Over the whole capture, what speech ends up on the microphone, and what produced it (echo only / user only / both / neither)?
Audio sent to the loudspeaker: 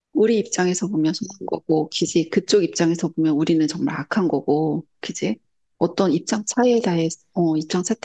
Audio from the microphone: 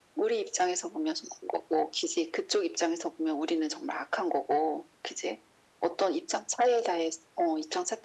echo only